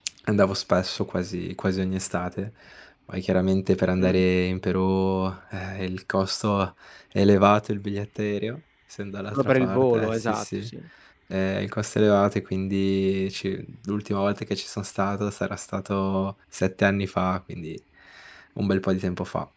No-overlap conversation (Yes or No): No